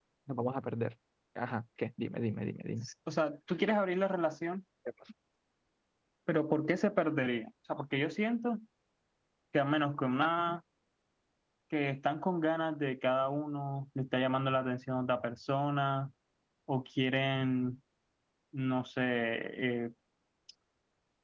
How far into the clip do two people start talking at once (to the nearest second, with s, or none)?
none